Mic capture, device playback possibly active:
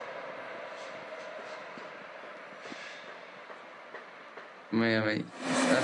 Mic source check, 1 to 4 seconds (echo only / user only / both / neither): neither